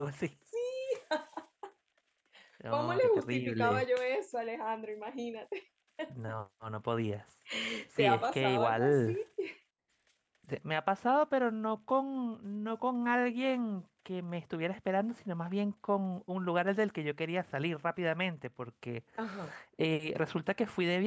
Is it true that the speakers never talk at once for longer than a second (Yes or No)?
No